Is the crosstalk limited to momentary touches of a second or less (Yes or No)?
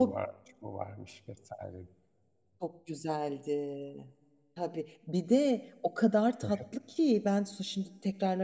Yes